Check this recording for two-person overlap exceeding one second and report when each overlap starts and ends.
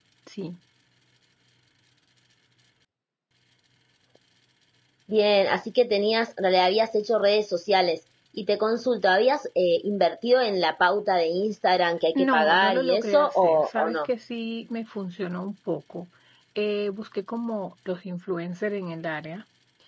12.2-14.1

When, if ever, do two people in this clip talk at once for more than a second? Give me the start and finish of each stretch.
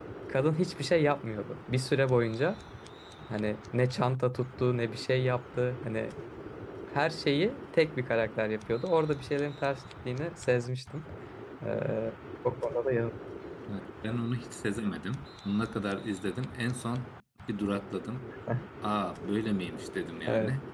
none

